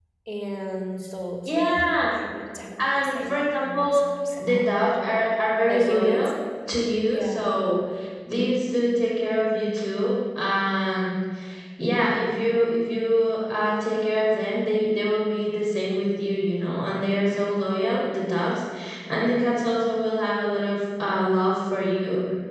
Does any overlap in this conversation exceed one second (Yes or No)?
Yes